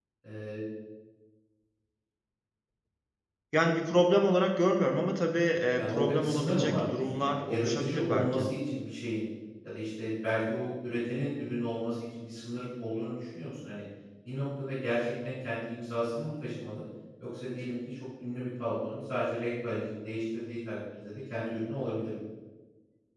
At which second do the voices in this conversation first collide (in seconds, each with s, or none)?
5.8 s